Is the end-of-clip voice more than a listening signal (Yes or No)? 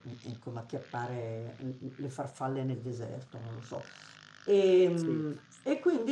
No